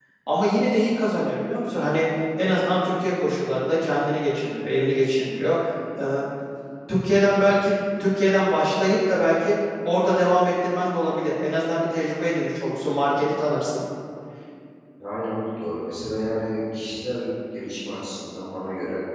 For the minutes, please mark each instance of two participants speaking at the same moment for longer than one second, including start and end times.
none

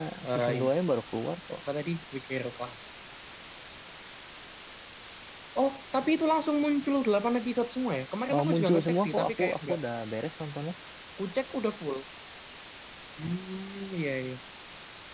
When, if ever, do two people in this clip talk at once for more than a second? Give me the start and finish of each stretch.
8.3-9.8

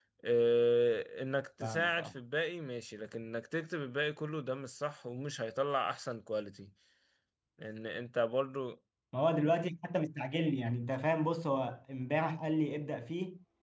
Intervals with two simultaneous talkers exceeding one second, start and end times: none

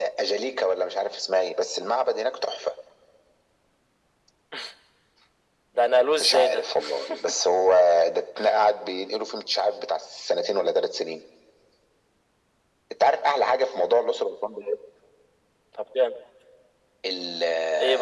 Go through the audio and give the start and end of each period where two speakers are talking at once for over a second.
none

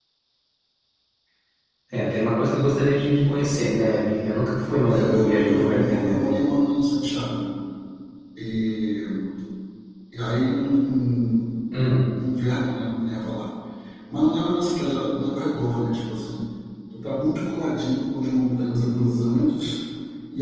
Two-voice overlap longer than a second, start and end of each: 4.9-6.3

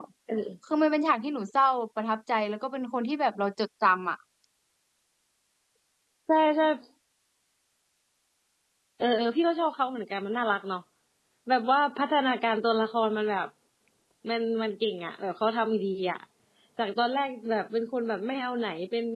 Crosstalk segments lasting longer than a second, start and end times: none

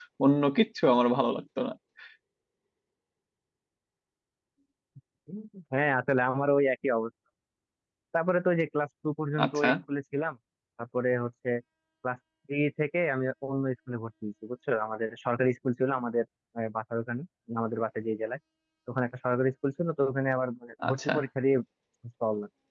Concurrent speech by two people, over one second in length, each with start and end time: none

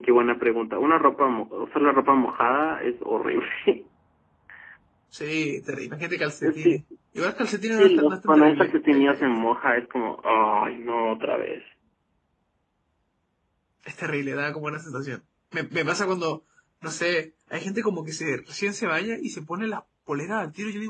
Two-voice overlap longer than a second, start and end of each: 7.8-9.2

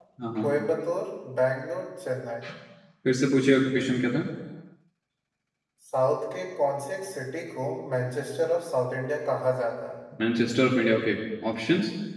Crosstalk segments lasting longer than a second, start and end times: none

